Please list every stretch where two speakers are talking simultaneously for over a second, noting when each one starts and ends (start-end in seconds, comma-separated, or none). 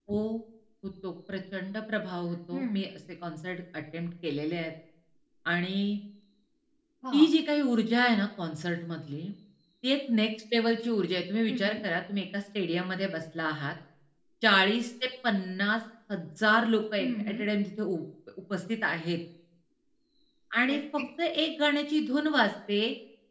none